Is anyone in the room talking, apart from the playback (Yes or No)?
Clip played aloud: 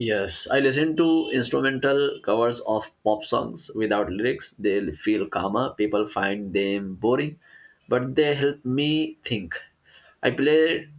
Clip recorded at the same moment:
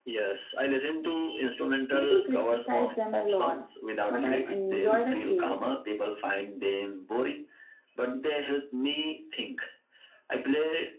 Yes